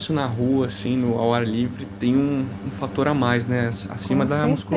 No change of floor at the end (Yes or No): No